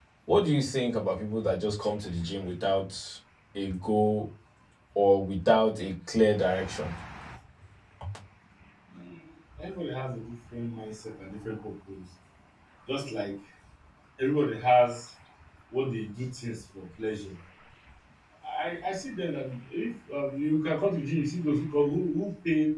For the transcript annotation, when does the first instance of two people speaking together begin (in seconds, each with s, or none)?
none